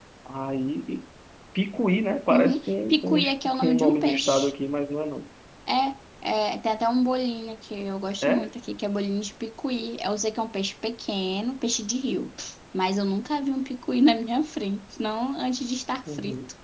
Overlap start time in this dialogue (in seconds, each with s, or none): 2.3 s